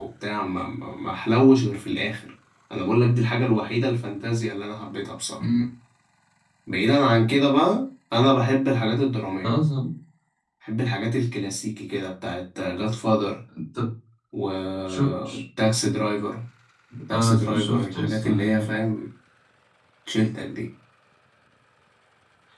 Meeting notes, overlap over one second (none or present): present